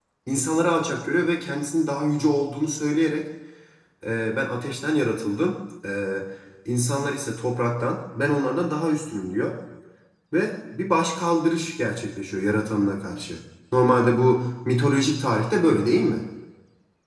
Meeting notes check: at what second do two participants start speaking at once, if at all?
none

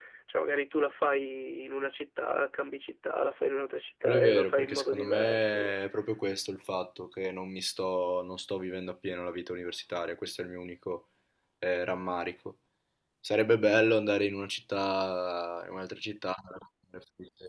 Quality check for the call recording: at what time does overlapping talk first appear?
4 s

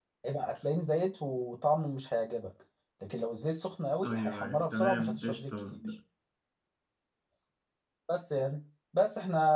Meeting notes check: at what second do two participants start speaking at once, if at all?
4 s

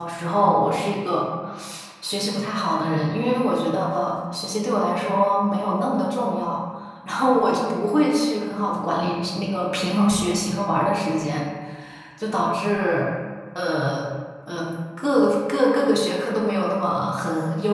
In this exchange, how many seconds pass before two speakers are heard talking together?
none

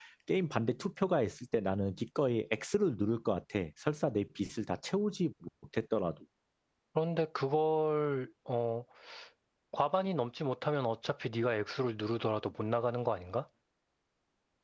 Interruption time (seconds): none

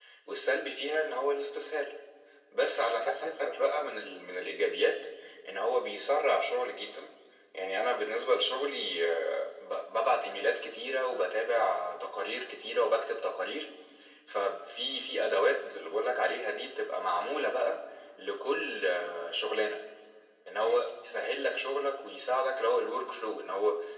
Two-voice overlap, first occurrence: 3 s

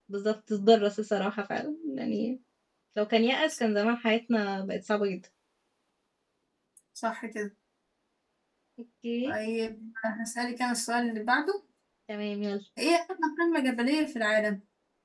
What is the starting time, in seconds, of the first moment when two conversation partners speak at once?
none

